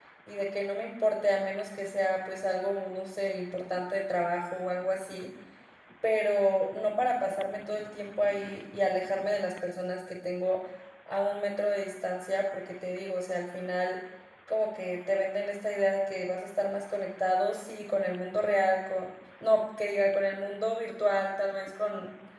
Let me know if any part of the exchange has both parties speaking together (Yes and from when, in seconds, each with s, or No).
No